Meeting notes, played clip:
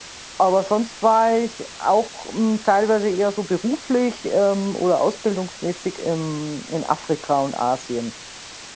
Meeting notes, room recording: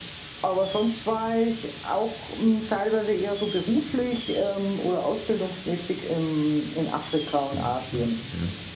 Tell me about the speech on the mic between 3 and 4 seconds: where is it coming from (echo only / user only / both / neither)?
echo only